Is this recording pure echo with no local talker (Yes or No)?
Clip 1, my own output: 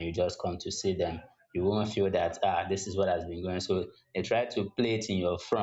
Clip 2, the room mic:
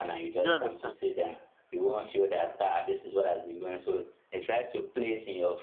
No